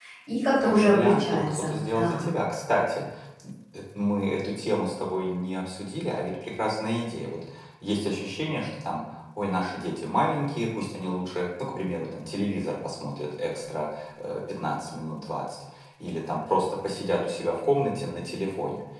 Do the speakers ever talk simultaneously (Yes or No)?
Yes